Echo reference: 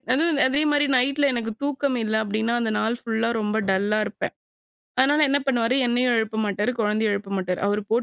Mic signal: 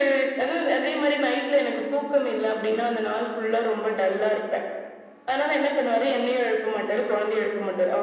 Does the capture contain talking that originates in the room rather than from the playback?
No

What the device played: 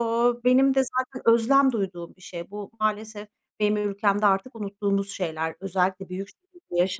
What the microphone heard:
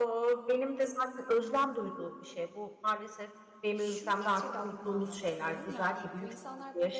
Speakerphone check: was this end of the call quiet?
No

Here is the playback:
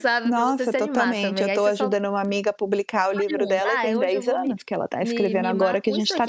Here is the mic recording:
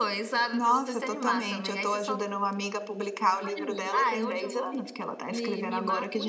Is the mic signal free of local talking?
Yes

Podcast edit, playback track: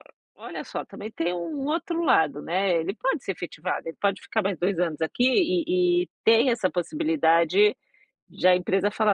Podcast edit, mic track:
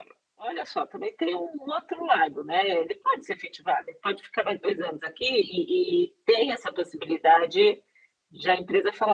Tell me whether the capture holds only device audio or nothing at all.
Yes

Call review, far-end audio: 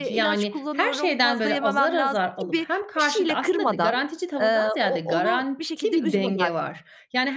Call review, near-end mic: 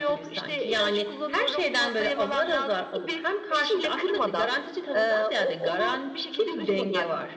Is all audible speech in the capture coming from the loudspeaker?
Yes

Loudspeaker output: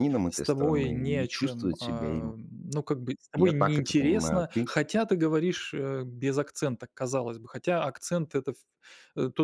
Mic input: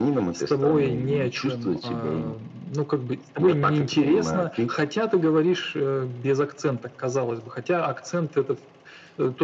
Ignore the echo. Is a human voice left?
No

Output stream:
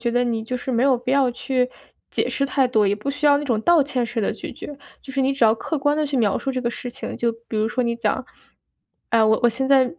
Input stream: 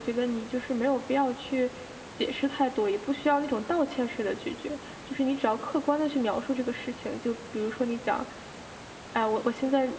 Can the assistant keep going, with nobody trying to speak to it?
Yes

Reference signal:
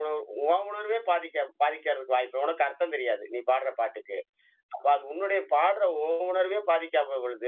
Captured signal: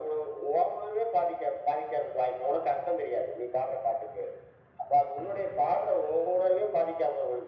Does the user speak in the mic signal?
No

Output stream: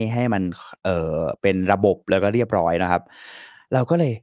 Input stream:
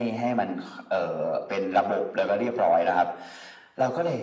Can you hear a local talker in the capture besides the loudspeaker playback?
No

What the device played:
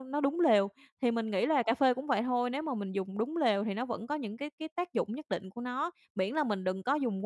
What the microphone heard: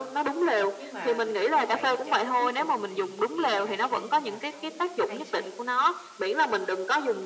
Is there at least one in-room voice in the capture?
Yes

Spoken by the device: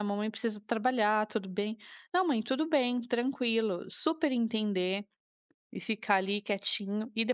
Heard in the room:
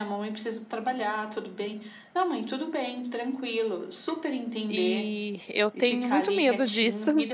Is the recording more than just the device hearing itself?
Yes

